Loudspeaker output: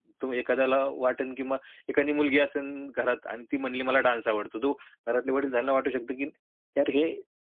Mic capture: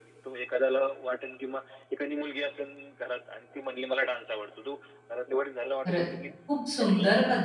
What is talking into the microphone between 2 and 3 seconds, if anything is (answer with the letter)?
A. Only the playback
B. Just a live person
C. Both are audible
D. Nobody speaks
A